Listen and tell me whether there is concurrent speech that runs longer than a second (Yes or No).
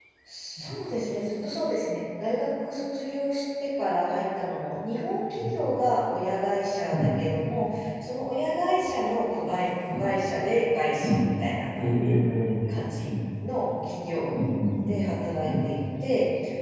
No